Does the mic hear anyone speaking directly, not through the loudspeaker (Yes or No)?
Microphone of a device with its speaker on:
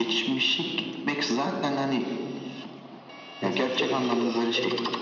Yes